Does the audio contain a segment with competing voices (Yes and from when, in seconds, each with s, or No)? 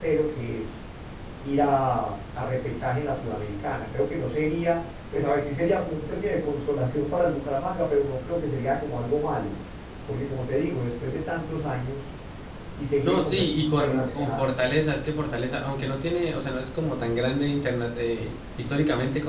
Yes, from 13.0 s